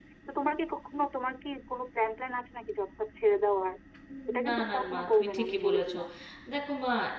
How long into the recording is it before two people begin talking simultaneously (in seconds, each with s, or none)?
4.5 s